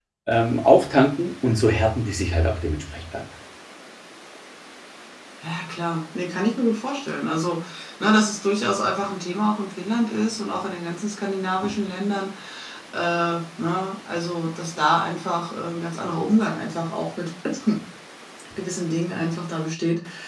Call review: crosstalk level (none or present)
none